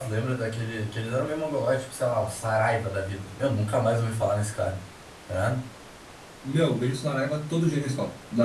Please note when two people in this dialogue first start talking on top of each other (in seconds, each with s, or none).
none